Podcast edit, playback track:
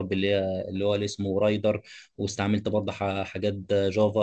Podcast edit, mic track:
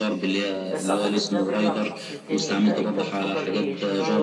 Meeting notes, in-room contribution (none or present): present